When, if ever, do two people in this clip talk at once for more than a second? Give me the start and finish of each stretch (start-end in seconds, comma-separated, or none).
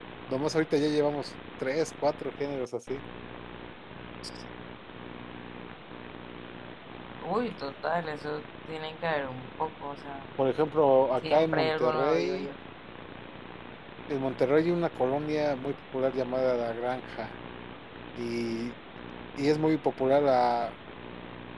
11.2-12.5